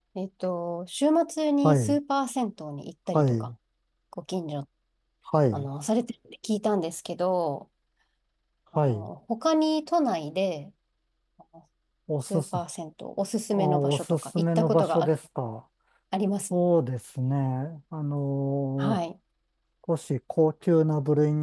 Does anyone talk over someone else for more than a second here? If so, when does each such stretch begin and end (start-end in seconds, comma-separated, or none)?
13.6-15.2